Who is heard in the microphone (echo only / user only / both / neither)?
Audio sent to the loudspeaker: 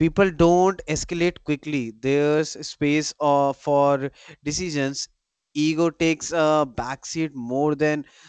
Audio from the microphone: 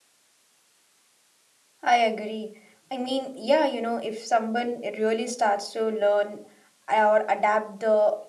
user only